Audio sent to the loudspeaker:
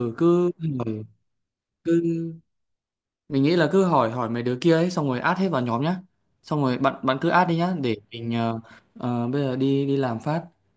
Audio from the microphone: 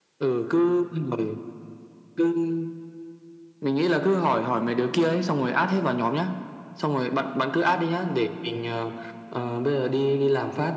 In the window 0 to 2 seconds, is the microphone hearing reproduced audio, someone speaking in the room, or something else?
echo only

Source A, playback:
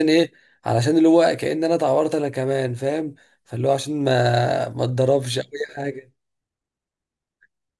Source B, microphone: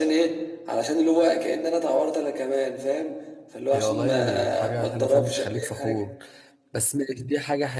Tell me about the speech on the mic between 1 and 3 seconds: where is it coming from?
echo only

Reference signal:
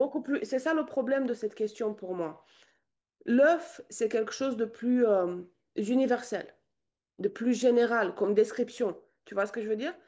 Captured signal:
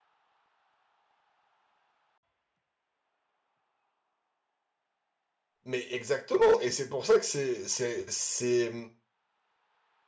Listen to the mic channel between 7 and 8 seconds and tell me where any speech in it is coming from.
user only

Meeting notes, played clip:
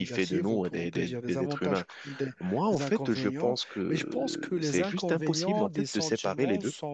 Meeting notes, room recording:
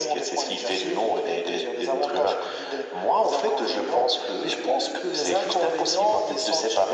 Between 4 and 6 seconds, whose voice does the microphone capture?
echo only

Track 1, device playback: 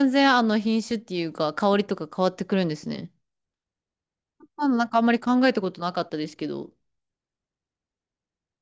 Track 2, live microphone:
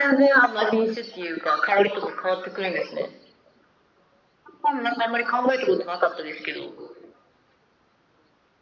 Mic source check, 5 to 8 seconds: echo only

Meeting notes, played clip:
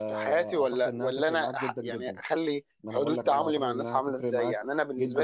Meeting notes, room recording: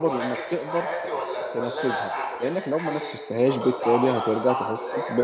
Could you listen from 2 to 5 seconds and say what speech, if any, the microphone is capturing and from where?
both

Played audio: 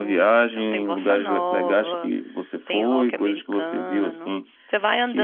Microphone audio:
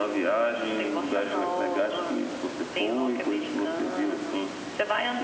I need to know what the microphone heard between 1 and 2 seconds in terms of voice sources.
echo only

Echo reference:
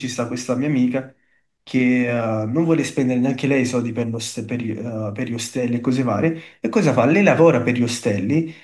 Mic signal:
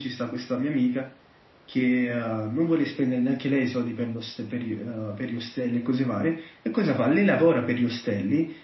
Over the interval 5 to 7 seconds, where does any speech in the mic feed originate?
echo only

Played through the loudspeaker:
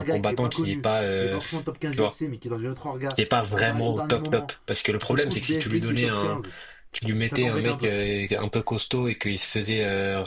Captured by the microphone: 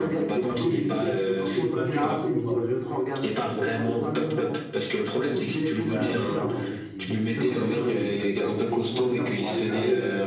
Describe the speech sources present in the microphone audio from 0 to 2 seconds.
both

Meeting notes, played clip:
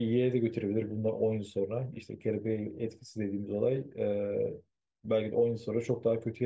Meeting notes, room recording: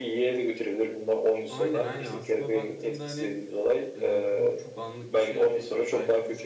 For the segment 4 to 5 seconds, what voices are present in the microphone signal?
both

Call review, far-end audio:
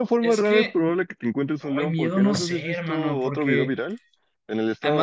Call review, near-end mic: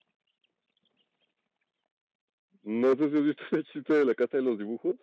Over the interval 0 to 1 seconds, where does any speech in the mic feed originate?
neither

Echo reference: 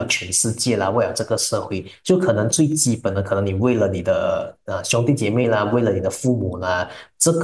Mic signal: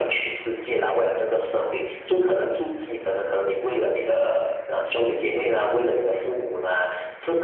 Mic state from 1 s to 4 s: echo only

